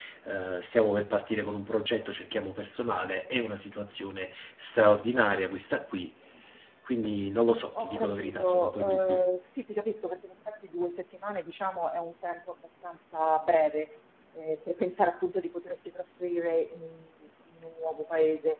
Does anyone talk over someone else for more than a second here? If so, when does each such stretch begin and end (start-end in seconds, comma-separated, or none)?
7.8-9.2